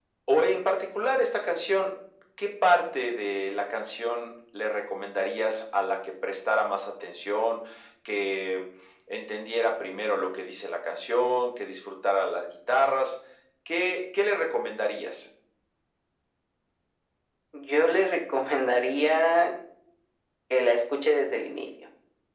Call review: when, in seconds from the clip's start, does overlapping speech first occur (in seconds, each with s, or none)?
none